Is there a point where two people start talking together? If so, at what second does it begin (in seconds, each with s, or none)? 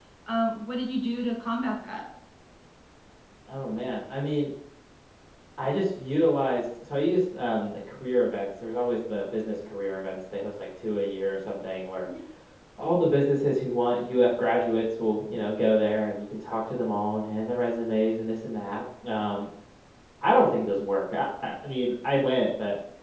none